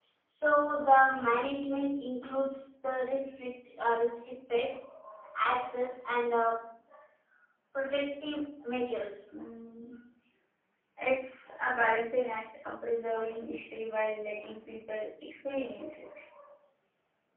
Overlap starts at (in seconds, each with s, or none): none